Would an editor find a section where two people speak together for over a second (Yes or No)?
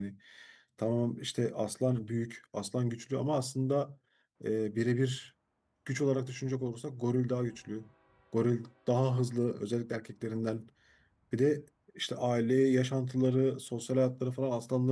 No